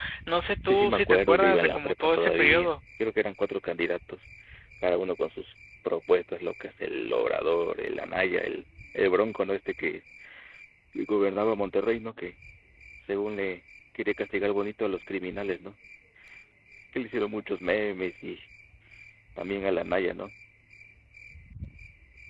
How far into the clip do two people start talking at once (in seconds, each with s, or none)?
0.6 s